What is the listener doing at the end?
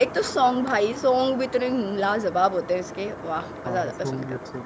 taking over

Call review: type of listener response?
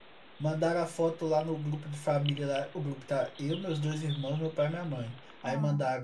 listening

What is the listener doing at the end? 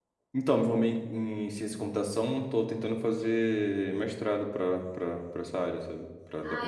taking over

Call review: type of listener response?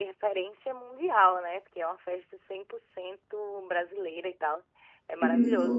listening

